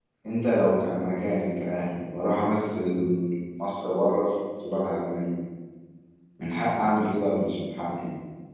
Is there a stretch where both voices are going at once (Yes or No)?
No